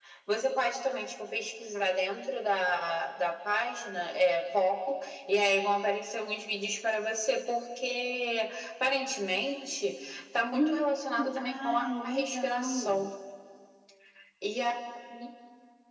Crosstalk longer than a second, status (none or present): present